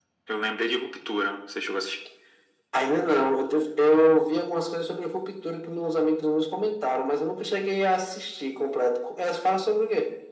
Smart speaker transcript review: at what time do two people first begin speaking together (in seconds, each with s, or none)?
none